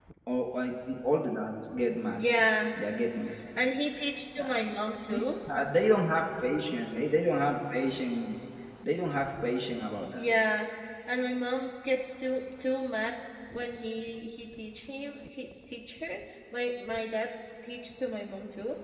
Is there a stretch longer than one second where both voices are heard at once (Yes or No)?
No